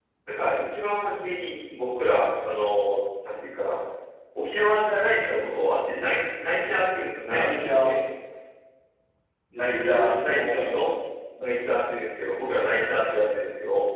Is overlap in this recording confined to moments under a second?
No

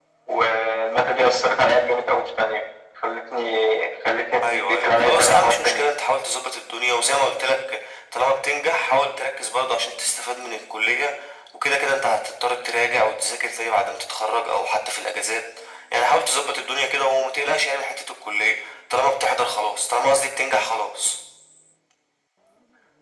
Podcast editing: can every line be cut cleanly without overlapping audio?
No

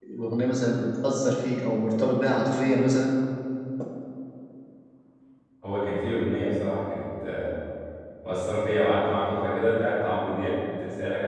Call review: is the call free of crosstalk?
Yes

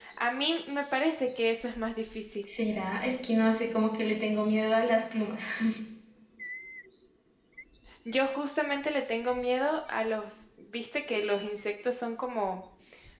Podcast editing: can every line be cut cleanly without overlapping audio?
Yes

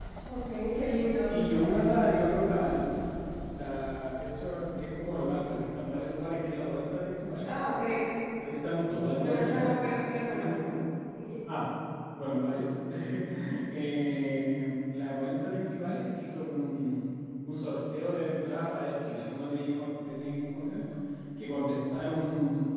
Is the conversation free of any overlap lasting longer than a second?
Yes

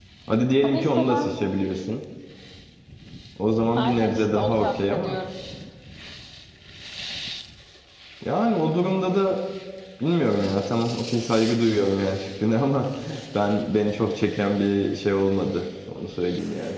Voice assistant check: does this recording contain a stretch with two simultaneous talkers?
Yes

